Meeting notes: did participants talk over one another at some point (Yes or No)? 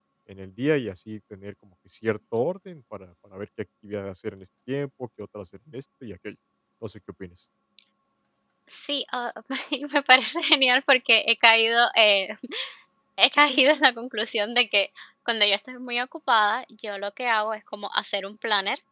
No